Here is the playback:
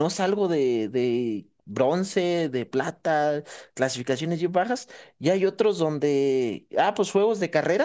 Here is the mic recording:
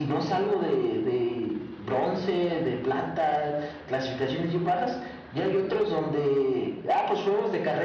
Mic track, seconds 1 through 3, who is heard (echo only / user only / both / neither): echo only